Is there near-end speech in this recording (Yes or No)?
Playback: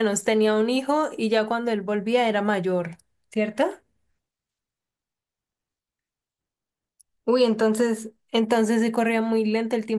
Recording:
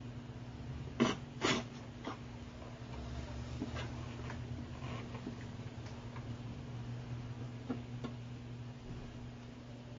No